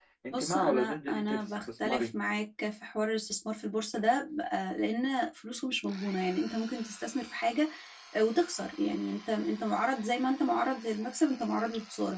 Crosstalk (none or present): present